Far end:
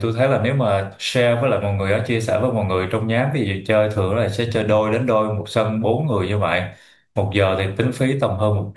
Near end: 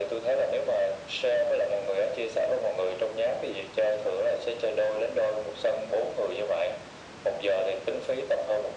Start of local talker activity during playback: none

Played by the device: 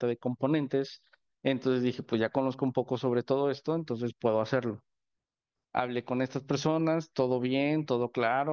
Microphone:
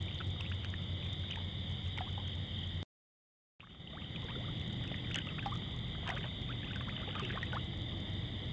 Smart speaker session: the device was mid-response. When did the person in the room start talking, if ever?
none

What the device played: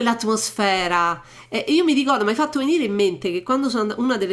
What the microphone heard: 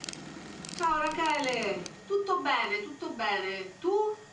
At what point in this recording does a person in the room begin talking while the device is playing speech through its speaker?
1 s

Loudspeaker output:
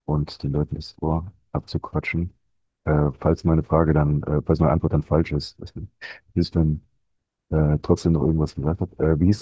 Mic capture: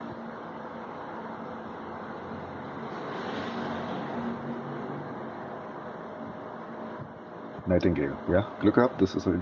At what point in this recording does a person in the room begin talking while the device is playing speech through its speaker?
8 s

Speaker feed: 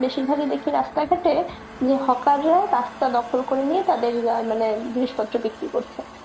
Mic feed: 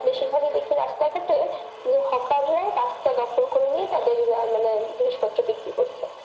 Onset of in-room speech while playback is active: none

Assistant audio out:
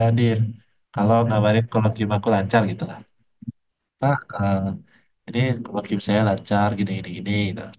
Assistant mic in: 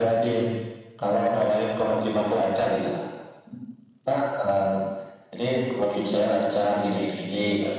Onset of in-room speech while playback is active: none

